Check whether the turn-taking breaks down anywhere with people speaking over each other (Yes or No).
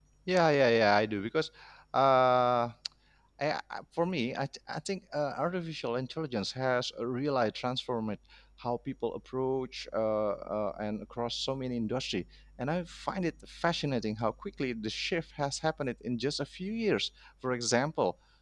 No